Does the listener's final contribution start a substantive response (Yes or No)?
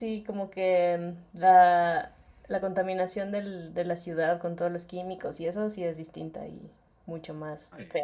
Yes